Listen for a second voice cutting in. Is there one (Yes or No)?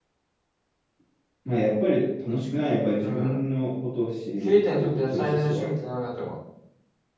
Yes